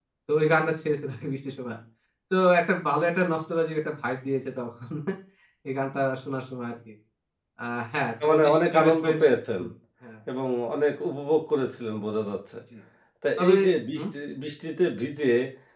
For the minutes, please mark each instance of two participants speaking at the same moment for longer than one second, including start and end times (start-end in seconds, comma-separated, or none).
8.2-9.6